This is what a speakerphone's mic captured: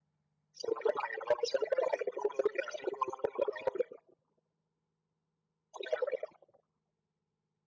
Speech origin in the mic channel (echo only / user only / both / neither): echo only